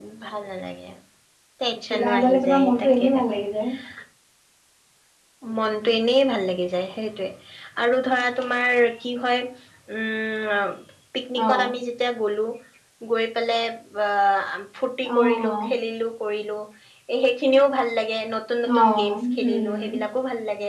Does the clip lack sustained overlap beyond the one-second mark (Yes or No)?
No